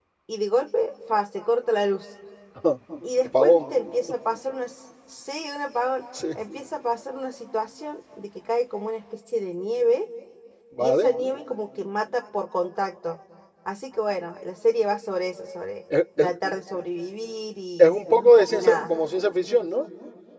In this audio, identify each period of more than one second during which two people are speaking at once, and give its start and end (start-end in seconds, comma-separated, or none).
none